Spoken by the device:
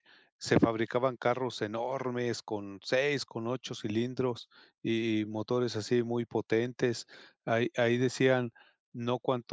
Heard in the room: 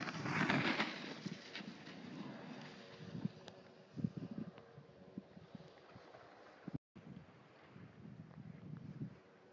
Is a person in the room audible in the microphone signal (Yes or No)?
No